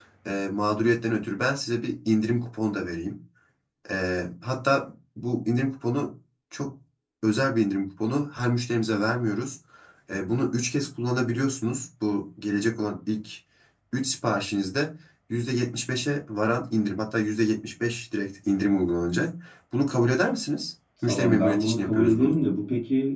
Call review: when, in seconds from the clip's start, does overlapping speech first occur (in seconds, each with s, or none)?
21.1 s